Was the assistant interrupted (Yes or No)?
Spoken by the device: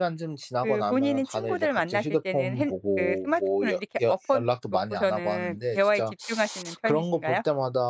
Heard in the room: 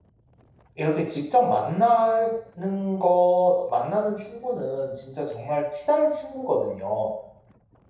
Yes